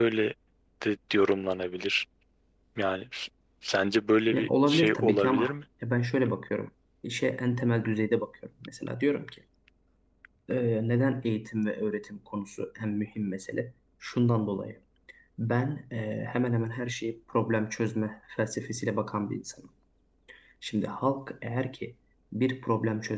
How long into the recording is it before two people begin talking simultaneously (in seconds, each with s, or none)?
4.3 s